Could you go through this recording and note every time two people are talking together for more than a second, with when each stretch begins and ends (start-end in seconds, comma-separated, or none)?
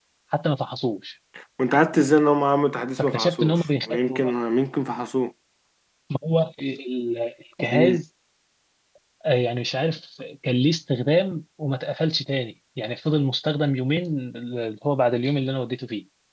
3.0-4.3